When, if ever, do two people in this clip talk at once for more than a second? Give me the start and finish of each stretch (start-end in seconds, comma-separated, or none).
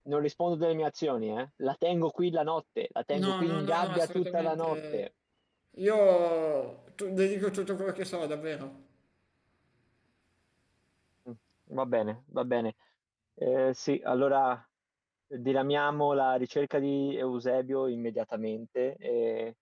3.2-5.0